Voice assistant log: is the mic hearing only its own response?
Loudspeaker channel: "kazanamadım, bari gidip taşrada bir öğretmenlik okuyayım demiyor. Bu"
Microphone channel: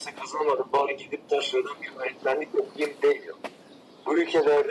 Yes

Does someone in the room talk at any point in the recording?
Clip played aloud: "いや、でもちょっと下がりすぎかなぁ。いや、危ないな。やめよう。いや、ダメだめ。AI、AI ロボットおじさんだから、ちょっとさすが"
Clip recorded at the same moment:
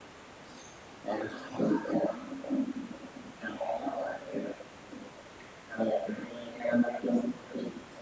No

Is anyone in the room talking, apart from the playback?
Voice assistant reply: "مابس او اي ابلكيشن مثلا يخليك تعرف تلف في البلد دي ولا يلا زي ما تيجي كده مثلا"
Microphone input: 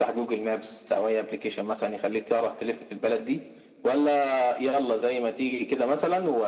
No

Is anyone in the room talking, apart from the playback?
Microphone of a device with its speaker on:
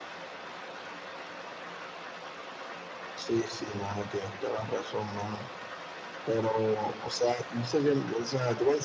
No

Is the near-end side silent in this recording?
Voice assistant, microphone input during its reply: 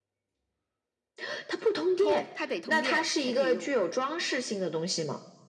No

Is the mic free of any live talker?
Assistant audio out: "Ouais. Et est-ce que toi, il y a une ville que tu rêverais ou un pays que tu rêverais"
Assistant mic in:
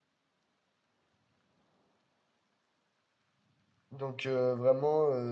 No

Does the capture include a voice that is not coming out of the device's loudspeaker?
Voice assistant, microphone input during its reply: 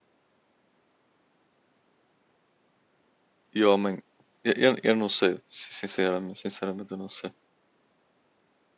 Yes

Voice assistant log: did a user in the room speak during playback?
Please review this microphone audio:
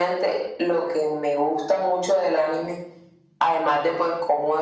No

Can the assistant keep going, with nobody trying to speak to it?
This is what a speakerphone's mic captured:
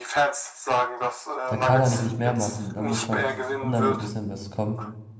No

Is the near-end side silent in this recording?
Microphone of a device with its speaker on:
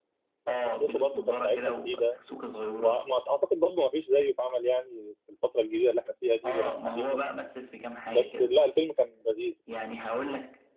No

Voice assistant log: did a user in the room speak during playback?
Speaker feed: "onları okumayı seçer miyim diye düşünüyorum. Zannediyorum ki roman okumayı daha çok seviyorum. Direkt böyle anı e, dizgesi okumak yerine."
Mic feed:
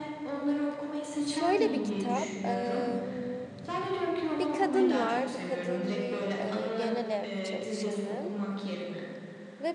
Yes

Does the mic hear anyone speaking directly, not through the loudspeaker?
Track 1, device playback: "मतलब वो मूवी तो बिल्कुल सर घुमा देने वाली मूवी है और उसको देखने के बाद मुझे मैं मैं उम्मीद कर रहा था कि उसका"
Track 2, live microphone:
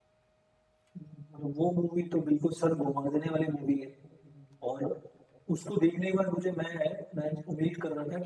No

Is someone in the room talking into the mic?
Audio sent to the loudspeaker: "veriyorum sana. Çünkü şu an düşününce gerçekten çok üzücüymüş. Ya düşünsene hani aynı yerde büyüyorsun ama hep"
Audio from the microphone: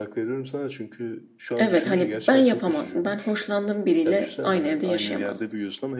Yes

